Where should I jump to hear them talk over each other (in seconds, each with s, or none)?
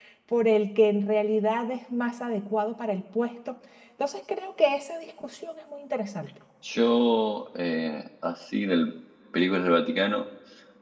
none